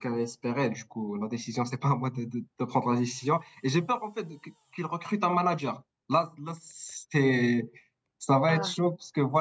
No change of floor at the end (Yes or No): Yes